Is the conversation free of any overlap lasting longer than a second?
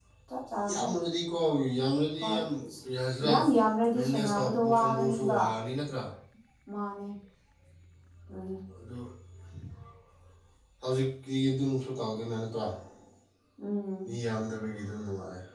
No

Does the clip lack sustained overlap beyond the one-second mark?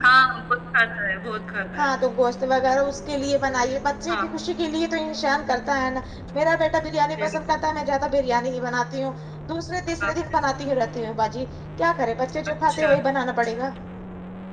Yes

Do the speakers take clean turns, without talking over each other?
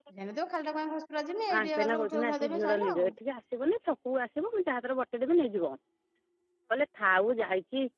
No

